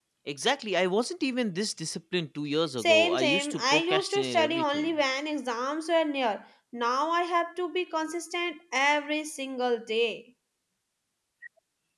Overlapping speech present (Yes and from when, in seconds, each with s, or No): Yes, from 2.8 s